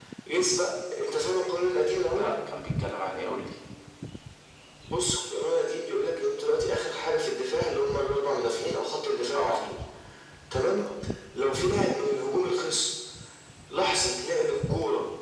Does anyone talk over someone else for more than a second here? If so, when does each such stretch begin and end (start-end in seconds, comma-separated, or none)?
none